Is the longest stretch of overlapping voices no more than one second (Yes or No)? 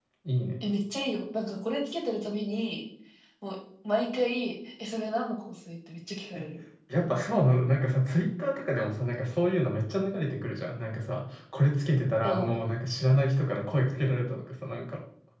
Yes